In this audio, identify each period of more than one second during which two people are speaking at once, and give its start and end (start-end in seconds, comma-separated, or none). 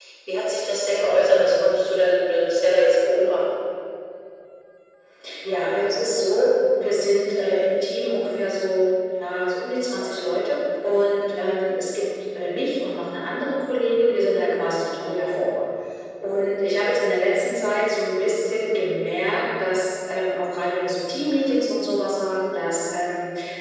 none